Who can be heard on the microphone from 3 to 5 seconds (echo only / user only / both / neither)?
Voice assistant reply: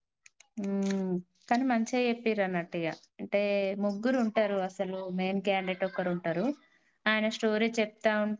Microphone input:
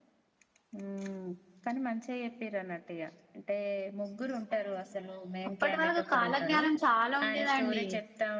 echo only